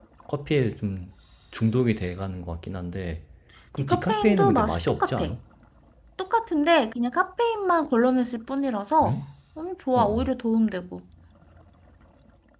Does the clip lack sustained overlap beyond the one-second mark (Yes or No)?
No